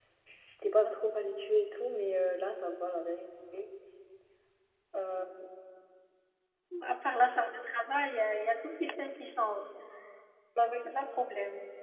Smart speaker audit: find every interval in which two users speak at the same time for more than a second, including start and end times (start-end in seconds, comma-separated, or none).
none